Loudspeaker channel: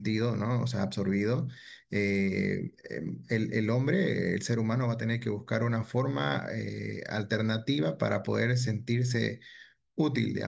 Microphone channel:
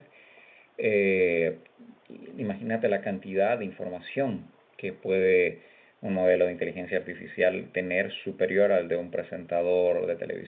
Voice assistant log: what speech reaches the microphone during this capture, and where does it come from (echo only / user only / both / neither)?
user only